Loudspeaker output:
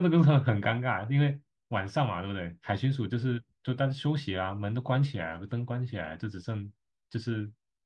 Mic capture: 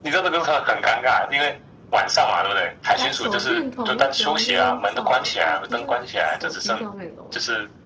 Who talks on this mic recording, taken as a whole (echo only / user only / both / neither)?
both